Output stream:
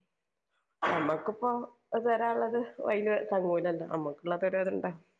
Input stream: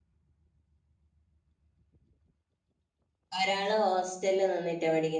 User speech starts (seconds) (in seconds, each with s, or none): 3.4 s